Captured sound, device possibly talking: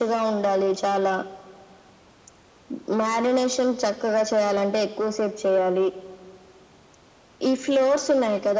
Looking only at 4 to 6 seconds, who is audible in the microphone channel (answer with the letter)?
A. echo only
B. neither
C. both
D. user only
A